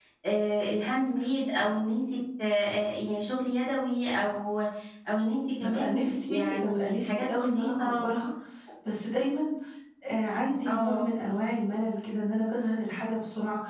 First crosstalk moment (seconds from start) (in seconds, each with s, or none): 5.6 s